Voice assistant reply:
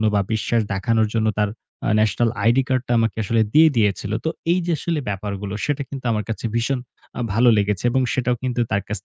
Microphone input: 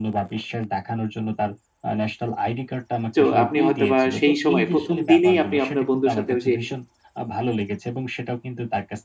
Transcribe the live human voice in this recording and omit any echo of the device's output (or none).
তো আপনি হয়তো বা সেই সময় প্রথম দিনেই আপনি আপনার বন্ধুর সাথে যে